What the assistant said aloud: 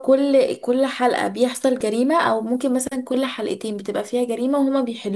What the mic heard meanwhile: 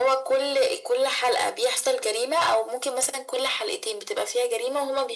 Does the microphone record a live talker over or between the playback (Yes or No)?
No